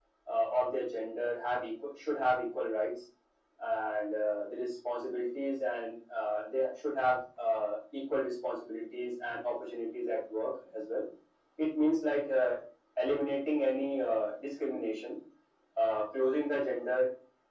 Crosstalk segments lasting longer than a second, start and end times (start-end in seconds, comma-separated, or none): none